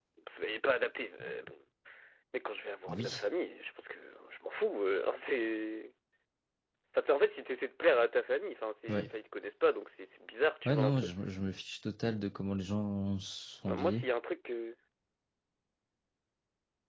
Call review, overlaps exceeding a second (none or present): none